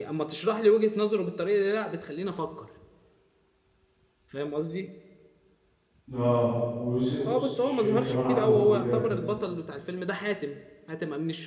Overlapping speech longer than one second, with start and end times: 7.4-9.1

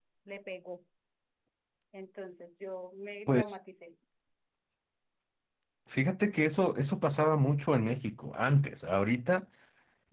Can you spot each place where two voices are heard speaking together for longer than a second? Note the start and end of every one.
none

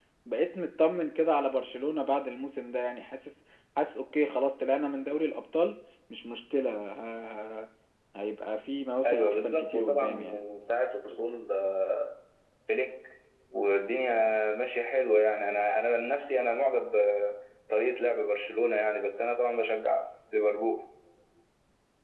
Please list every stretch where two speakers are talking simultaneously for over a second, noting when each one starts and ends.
9.1-10.4

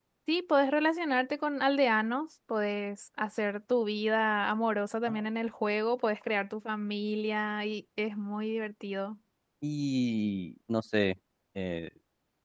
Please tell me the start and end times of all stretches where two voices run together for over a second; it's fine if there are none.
none

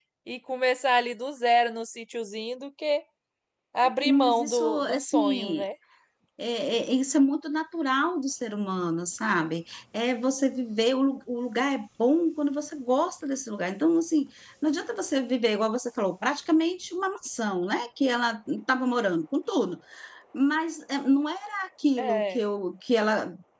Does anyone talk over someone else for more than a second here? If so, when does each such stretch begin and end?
4.0-5.6

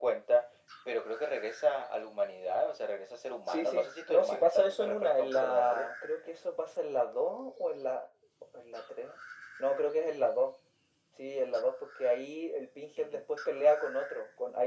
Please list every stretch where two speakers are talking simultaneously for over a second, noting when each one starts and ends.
3.5-5.9

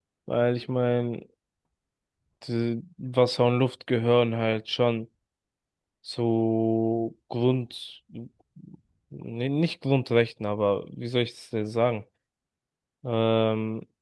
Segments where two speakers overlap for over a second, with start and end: none

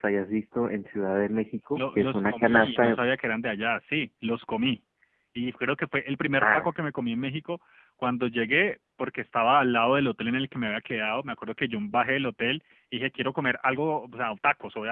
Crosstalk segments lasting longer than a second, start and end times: 1.8-3.0

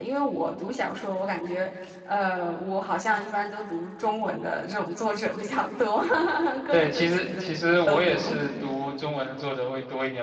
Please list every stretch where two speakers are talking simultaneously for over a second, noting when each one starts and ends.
6.7-8.3

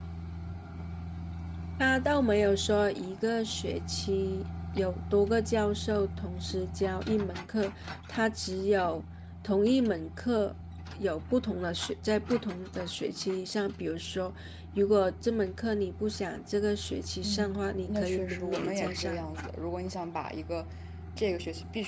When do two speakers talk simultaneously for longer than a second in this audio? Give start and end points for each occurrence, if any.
17.2-19.2

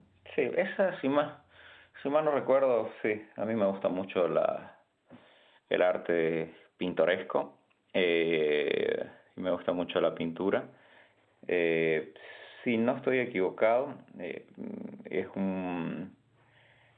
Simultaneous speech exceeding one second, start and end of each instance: none

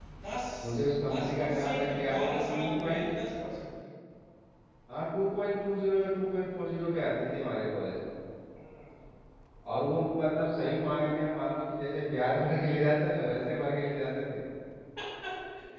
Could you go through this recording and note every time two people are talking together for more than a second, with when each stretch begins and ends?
1.1-3.0

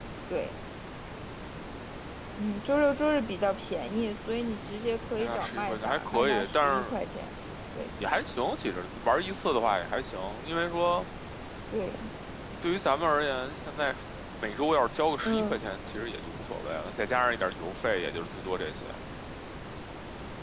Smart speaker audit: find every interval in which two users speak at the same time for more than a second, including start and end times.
5.2-6.9

